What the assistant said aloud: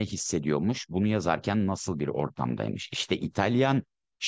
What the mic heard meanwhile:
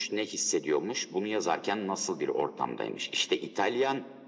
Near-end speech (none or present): none